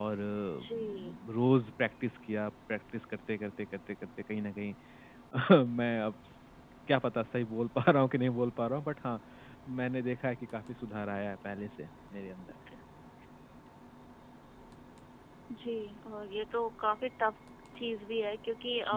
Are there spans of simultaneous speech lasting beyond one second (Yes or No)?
No